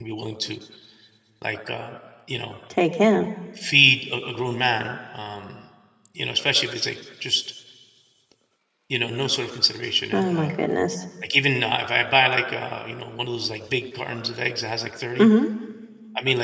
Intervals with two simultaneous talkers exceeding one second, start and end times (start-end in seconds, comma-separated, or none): none